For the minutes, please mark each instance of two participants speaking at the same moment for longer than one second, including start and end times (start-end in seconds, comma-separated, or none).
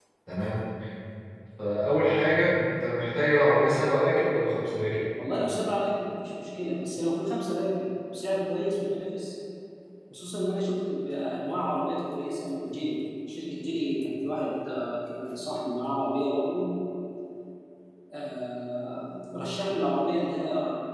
none